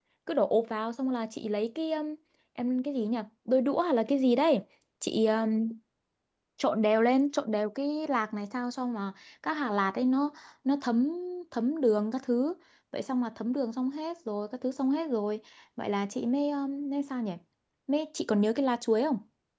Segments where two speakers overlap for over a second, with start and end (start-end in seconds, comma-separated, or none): none